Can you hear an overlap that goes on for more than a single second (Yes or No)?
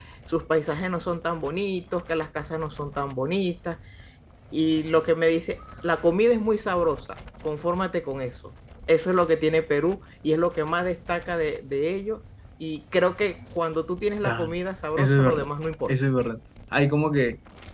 No